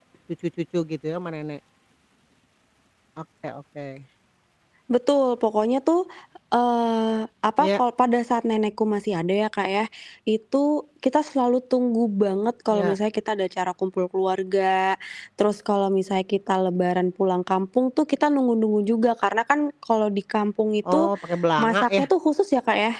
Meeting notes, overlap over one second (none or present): none